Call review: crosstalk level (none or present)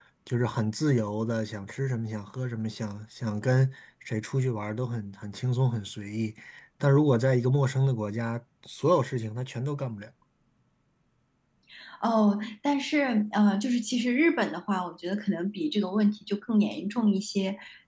none